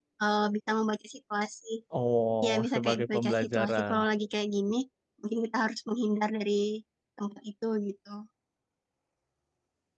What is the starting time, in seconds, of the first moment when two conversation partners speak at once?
2 s

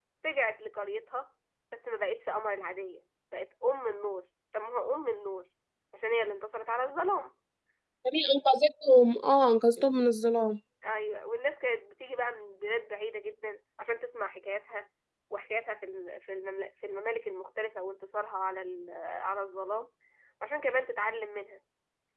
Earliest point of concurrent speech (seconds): none

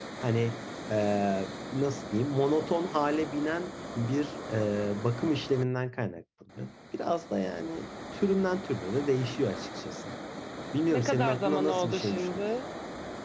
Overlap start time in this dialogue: 11 s

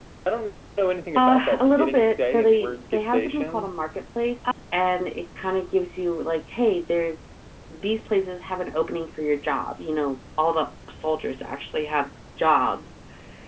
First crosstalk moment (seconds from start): 1 s

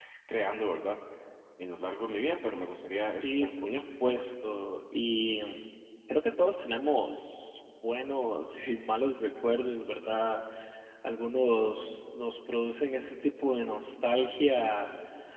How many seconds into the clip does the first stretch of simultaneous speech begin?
3 s

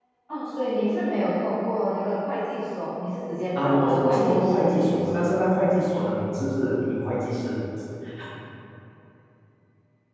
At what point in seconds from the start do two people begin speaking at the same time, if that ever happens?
4 s

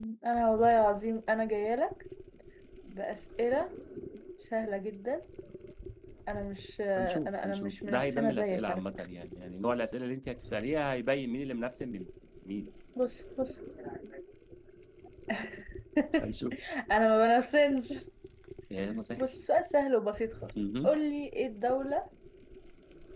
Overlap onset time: 7 s

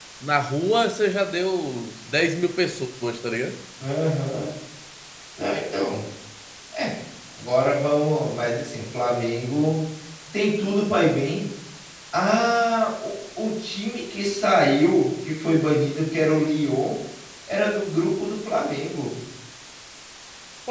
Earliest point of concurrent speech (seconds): none

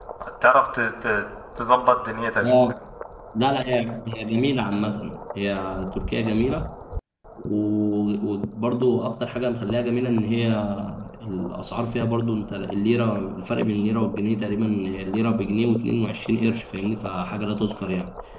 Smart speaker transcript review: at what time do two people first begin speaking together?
none

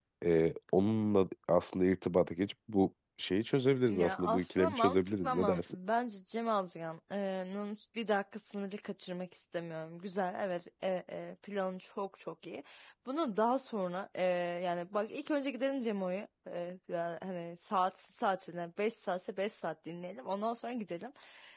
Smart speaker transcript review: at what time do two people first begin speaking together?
4 s

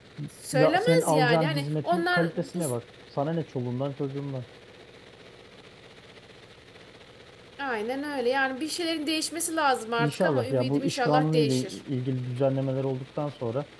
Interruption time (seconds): 1 s

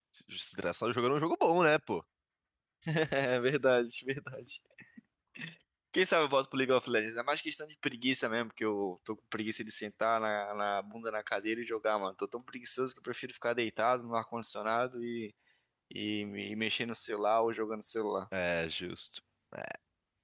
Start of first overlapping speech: none

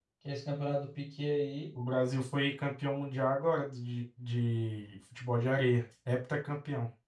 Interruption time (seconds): none

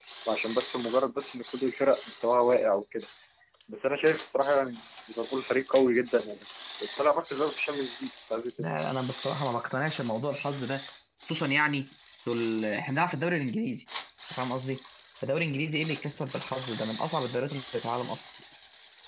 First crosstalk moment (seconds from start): none

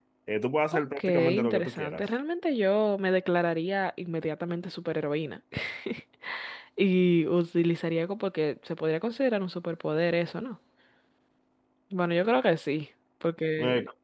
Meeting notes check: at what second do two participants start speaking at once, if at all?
1 s

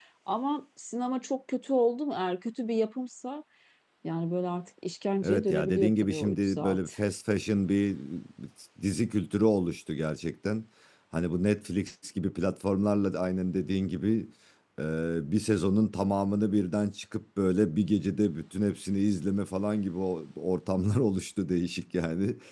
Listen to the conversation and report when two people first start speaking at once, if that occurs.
5 s

